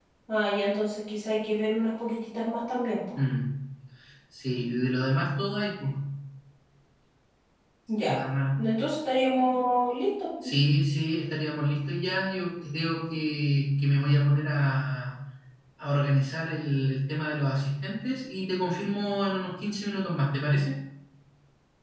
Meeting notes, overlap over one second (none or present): none